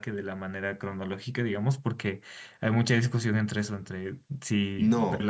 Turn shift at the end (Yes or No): Yes